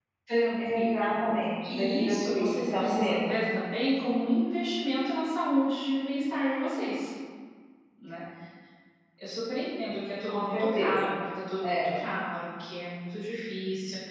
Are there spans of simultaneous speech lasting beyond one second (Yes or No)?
Yes